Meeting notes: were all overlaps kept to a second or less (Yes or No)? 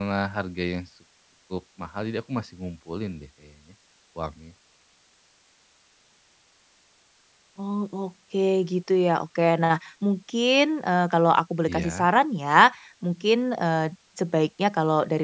Yes